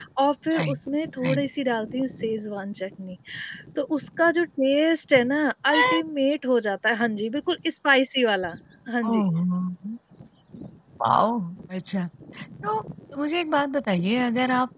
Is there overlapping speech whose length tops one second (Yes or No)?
No